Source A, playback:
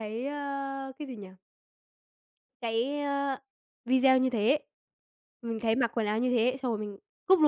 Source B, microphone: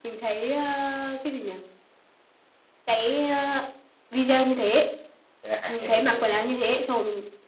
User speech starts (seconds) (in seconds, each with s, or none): 5.4 s